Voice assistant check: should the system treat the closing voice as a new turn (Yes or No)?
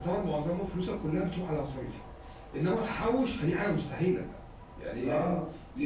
No